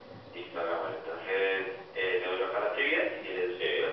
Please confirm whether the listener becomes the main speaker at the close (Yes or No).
No